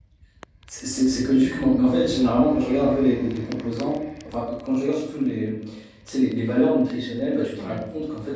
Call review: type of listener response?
listening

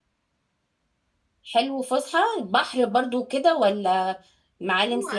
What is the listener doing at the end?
taking over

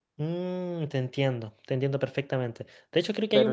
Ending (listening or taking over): listening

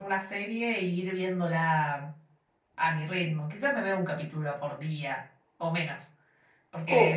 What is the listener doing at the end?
listening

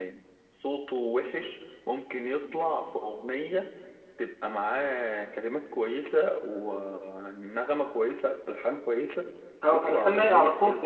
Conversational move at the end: taking over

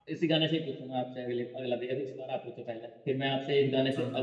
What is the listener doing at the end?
listening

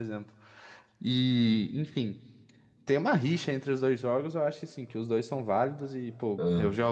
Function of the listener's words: listening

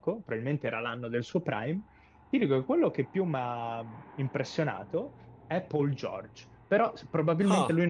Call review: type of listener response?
listening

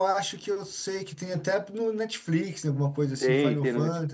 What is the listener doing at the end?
taking over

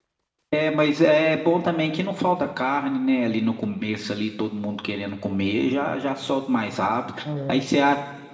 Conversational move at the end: listening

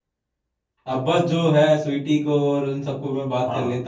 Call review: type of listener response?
taking over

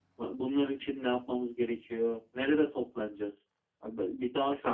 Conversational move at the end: taking over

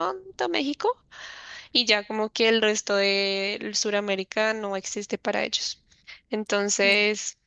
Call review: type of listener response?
listening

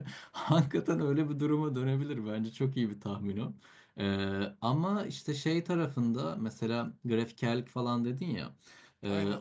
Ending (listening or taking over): listening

